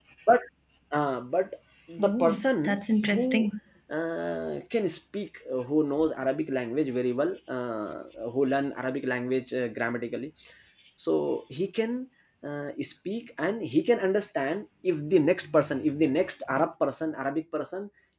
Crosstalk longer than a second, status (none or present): present